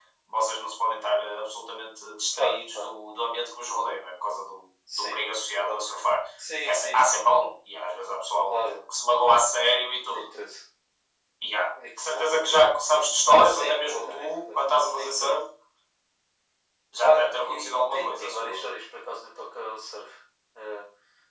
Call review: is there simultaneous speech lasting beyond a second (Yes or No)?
Yes